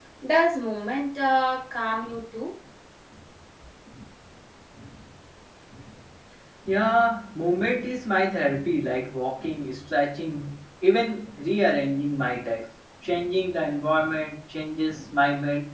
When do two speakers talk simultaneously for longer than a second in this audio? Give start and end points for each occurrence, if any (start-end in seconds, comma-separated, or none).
none